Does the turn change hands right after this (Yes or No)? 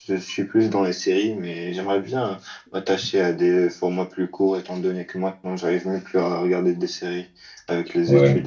Yes